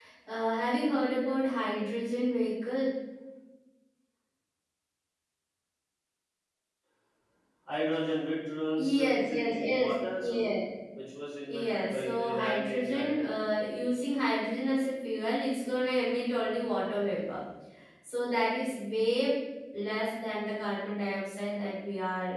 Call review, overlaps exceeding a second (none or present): present